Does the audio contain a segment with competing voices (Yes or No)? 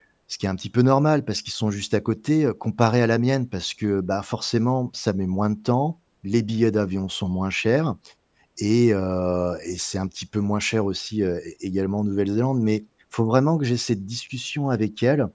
No